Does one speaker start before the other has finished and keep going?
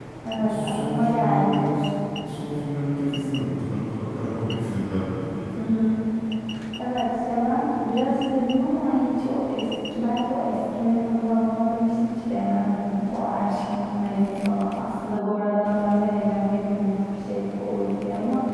Yes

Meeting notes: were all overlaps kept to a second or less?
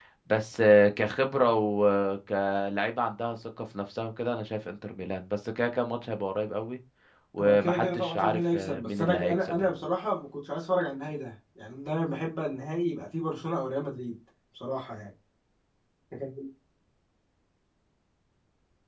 No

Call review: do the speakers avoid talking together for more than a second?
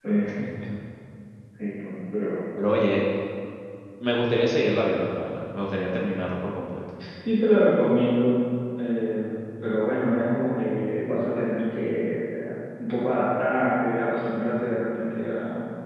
Yes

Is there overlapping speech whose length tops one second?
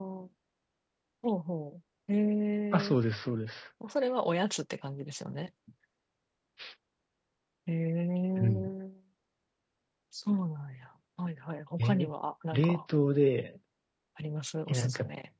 No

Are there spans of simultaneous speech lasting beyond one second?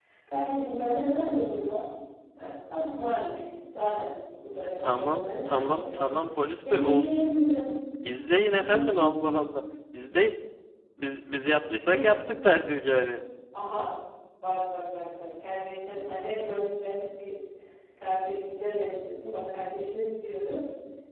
Yes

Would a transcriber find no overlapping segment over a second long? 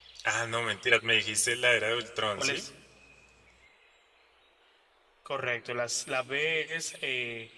Yes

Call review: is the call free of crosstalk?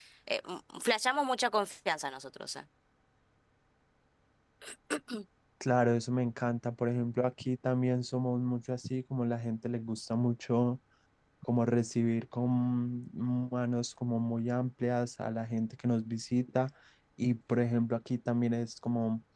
Yes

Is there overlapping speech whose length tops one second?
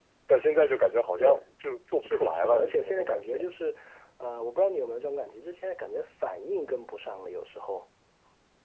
Yes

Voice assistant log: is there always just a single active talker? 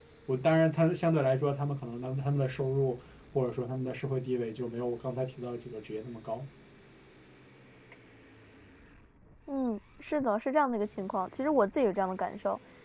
Yes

